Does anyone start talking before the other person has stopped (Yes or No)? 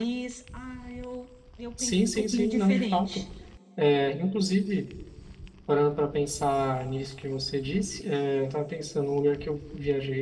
Yes